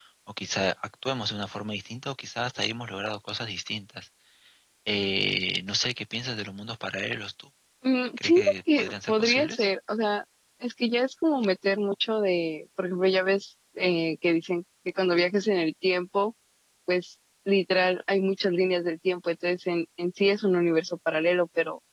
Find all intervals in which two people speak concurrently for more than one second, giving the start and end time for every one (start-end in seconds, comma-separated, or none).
8.2-9.7